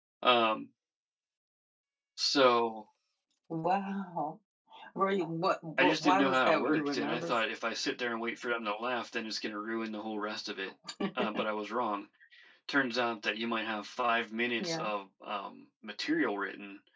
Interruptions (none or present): present